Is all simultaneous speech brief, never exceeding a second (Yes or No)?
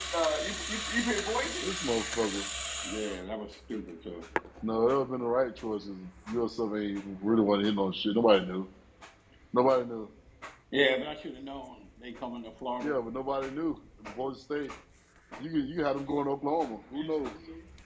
Yes